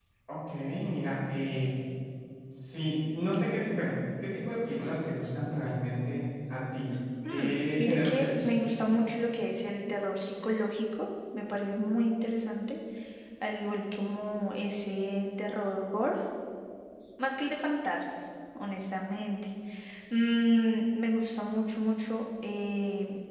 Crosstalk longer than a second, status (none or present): present